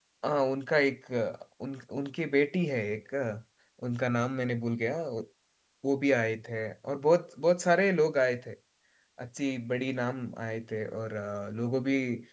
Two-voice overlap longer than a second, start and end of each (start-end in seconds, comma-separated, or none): none